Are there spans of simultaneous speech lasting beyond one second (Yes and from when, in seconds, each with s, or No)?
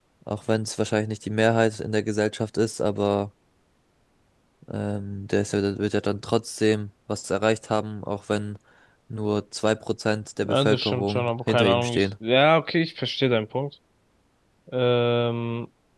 Yes, from 10.4 s